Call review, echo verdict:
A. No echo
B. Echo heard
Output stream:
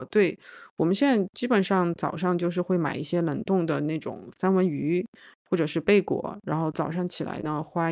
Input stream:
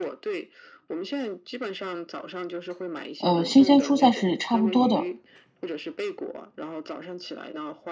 B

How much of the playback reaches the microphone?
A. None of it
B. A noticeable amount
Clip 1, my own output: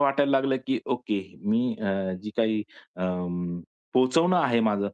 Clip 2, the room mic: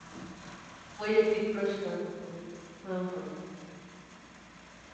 A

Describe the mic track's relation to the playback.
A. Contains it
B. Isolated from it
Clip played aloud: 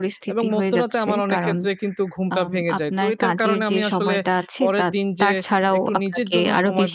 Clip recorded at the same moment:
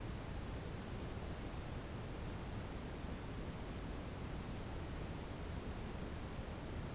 B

